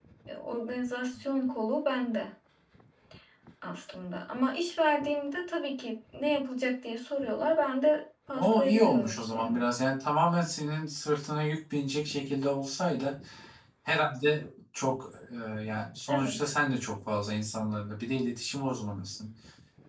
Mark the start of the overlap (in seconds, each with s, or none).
8.3 s